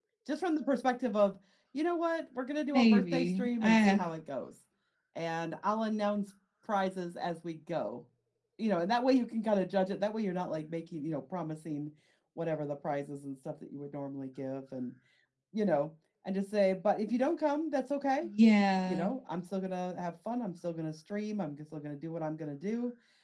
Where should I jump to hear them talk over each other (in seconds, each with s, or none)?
2.7 s